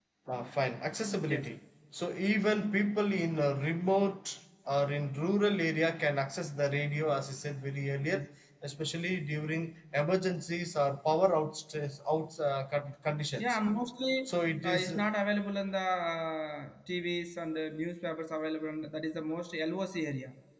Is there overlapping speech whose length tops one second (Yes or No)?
No